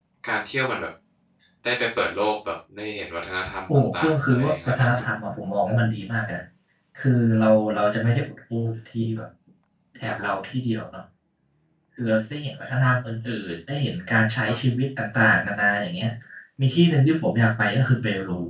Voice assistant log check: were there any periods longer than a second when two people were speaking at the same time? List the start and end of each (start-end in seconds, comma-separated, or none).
3.7-5.0